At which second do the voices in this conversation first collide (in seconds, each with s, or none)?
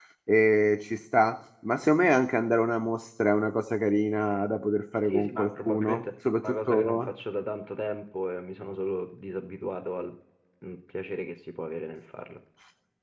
5.1 s